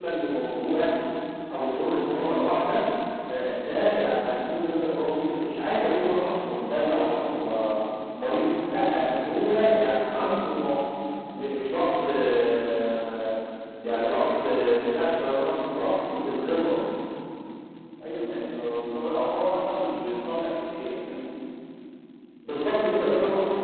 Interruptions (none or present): none